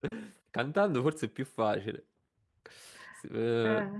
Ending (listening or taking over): listening